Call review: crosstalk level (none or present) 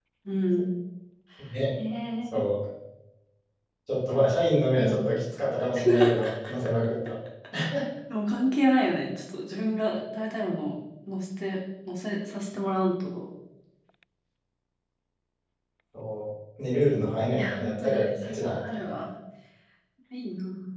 present